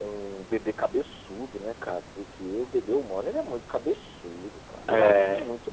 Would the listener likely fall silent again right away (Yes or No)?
Yes